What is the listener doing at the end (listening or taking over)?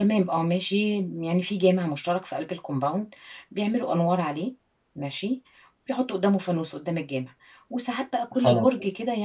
listening